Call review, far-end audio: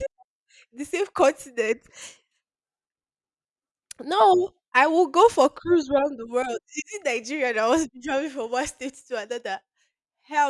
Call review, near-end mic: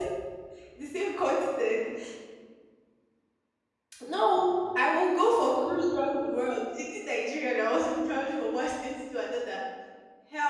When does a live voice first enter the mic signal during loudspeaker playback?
none

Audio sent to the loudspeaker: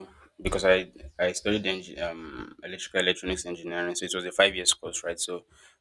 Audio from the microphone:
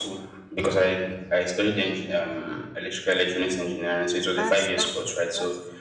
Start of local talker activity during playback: 4.3 s

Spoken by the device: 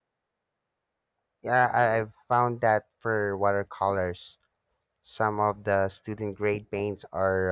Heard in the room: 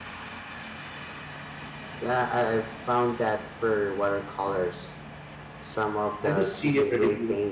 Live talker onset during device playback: 6.2 s

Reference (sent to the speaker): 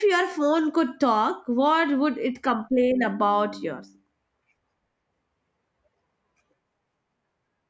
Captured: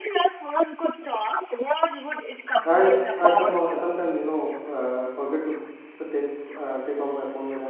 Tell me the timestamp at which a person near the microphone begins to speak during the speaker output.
2.6 s

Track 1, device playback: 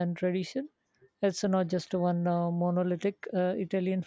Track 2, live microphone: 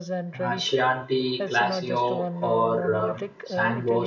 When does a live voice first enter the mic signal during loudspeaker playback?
0.4 s

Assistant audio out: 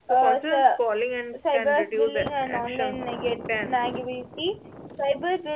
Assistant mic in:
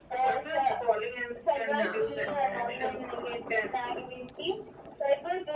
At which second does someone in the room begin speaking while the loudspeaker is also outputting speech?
1.7 s

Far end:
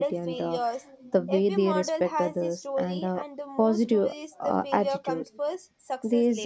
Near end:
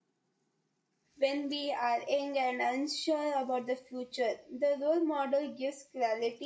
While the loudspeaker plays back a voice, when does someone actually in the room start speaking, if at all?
1.2 s

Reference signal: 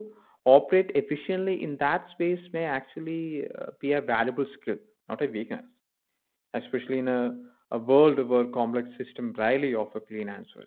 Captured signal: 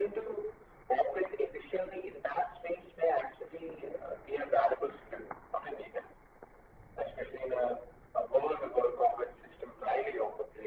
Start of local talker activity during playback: none

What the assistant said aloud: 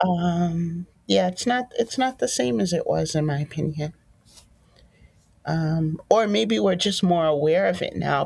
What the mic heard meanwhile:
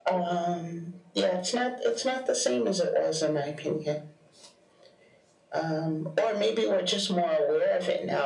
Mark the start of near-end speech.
none

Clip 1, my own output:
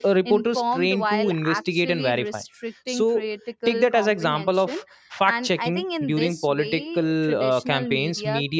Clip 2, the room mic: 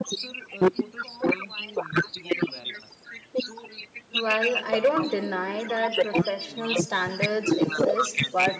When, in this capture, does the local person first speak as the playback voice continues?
4.1 s

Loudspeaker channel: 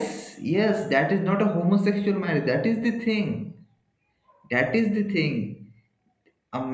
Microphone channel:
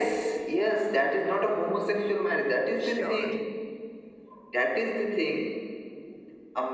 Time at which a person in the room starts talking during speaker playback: 2.8 s

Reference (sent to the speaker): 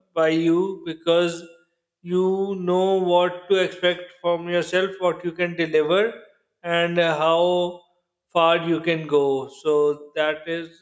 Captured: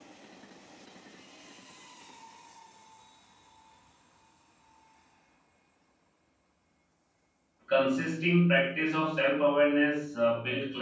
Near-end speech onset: 7.7 s

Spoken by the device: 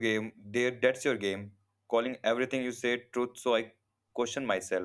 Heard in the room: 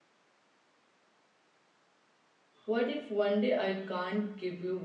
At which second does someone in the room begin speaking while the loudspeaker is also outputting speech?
2.7 s

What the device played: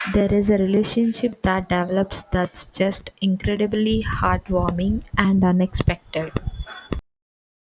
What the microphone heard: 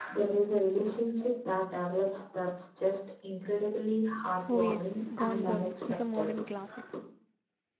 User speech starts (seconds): 4.5 s

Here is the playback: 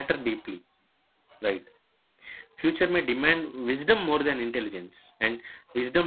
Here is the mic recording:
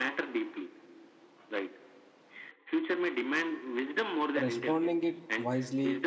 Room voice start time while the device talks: 4.4 s

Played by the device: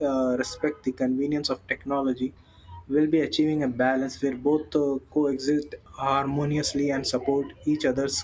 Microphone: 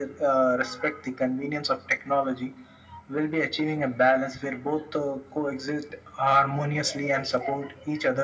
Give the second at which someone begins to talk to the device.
none

